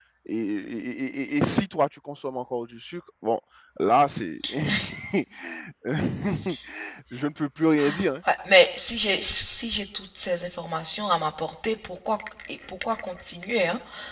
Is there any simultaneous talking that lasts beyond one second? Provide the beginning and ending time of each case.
none

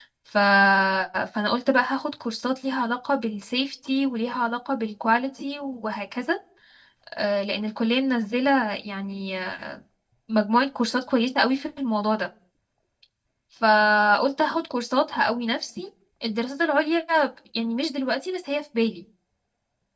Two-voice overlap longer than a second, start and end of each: none

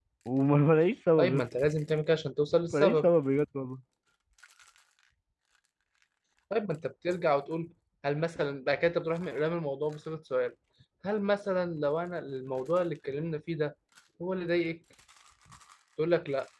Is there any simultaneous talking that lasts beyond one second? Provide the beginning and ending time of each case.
none

